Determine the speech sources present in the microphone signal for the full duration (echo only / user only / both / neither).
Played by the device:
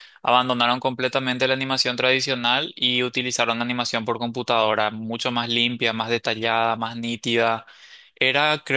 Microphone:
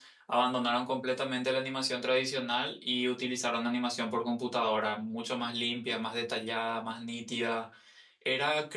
echo only